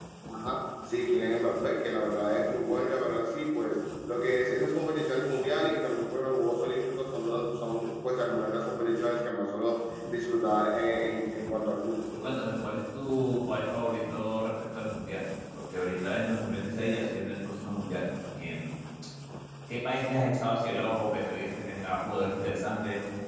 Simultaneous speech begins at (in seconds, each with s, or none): none